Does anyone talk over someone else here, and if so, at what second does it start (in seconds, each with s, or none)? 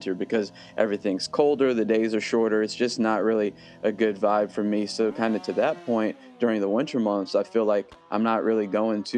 none